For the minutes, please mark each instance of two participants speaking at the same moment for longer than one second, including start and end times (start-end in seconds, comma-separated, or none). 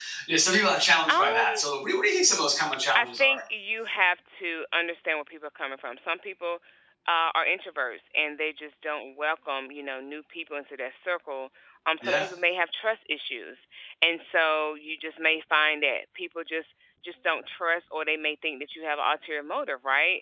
none